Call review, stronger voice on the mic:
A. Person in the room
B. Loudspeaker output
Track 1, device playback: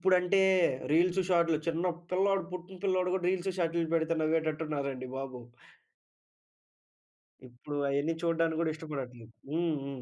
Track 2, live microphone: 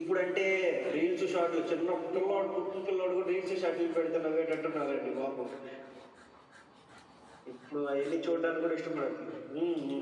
B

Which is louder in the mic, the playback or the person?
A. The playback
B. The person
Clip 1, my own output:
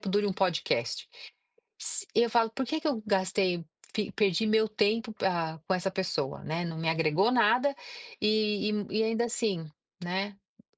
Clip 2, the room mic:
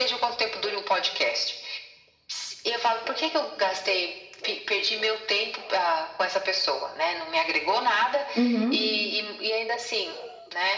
B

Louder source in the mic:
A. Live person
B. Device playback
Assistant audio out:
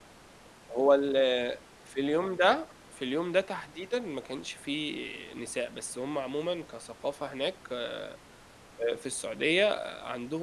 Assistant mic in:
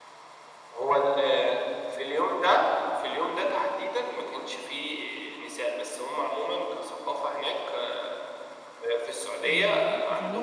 B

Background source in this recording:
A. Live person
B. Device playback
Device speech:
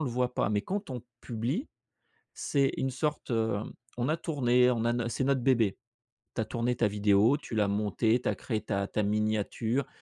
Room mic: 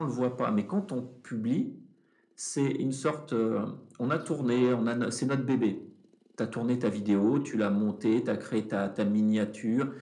A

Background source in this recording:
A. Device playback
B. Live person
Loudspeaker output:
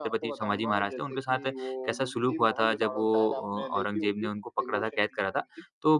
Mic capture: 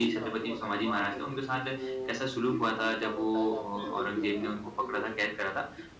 B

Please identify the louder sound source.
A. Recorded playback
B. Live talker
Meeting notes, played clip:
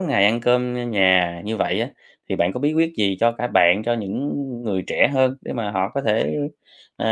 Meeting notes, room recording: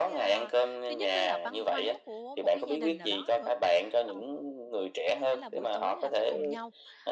A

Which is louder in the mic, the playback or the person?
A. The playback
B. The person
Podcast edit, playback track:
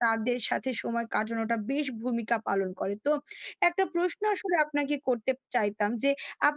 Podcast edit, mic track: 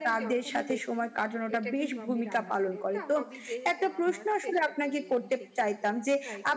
A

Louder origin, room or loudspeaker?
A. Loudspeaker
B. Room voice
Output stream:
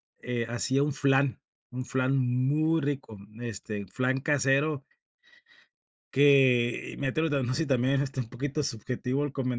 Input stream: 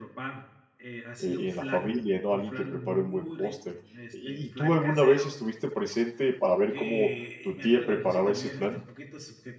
B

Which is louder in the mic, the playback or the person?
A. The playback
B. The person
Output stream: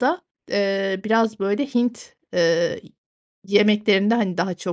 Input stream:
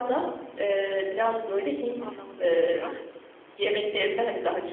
A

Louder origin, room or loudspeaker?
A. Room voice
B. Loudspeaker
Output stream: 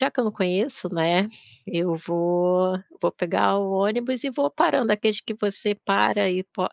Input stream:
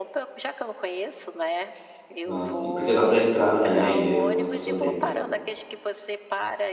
A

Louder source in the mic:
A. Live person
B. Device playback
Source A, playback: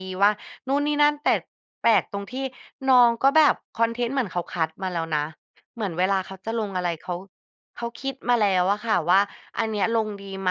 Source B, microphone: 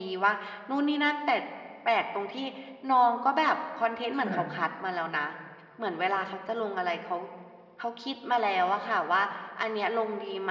B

